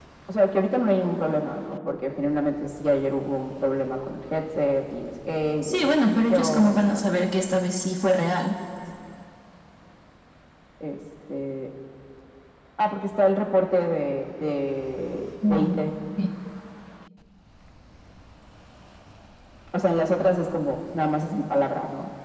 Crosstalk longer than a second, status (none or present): present